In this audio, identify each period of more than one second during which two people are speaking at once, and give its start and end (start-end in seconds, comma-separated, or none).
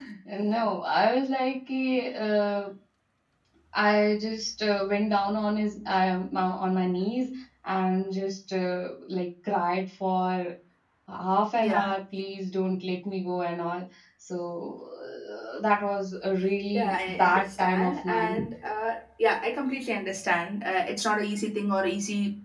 16.7-18.4